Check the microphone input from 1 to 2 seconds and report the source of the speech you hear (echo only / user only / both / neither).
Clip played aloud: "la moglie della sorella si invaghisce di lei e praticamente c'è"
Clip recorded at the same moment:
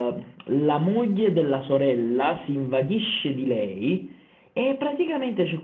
echo only